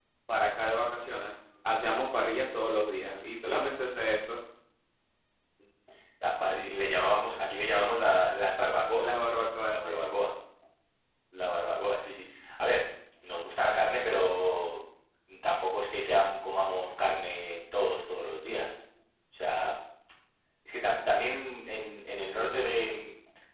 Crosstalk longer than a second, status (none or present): none